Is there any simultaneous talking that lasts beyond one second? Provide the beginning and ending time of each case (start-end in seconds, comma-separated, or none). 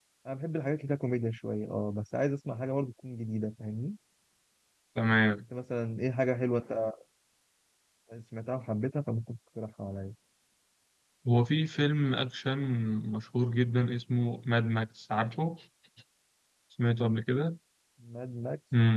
none